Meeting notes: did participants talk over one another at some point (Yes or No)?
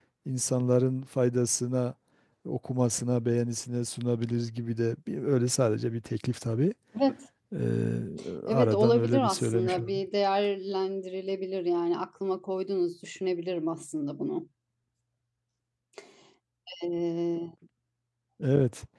Yes